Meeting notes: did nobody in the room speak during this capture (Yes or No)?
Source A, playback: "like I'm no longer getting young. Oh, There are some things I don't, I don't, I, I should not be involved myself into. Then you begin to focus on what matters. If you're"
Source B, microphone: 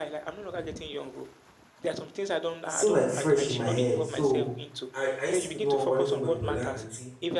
No